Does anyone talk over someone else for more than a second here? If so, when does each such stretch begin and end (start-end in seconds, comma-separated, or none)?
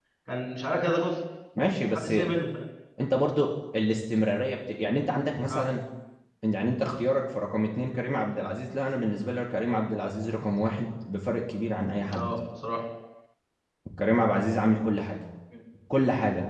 none